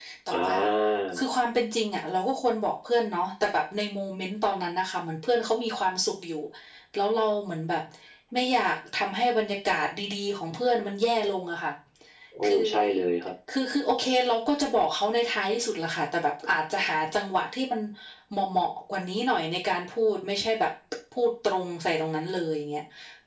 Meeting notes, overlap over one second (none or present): none